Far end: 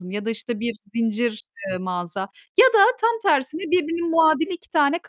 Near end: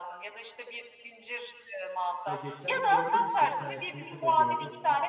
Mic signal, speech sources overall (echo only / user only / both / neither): both